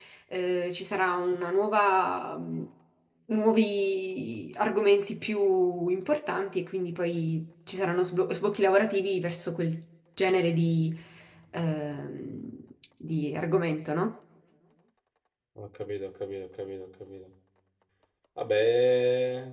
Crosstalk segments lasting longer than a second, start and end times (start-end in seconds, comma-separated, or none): none